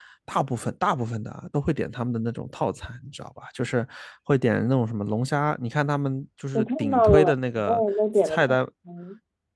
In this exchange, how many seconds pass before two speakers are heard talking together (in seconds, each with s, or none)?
6.5 s